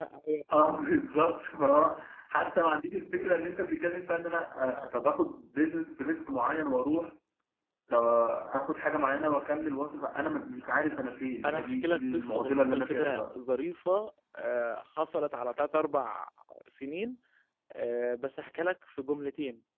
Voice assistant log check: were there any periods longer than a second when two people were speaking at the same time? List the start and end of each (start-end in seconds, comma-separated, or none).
11.4-13.3